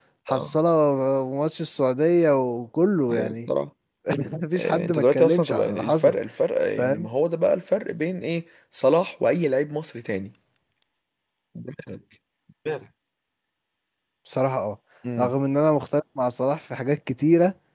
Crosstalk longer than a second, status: present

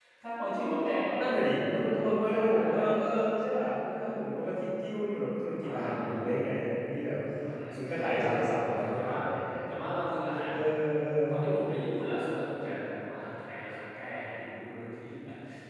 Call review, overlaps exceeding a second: present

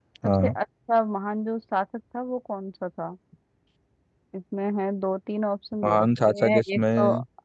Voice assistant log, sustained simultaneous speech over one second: present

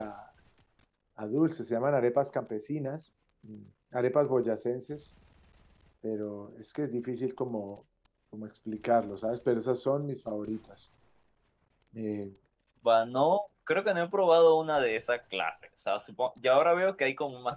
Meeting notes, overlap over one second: none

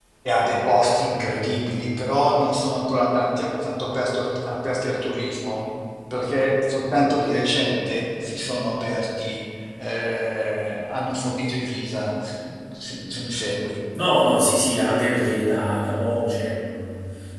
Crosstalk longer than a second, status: none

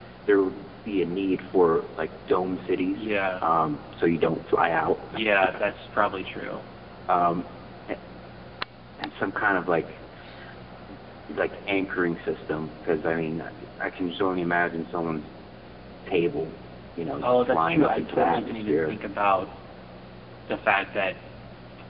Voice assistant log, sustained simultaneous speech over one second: present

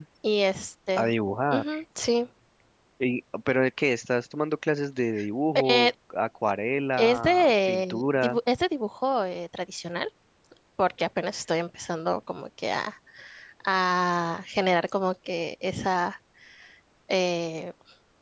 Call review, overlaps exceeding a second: present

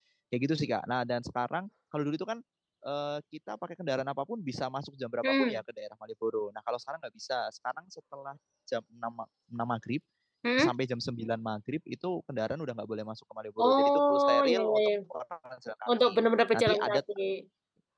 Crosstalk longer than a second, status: present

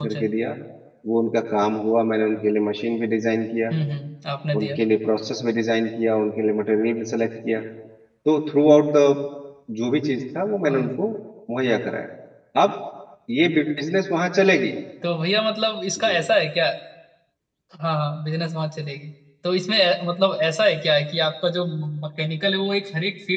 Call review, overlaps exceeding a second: none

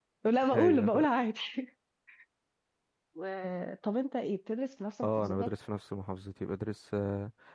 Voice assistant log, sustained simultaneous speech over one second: none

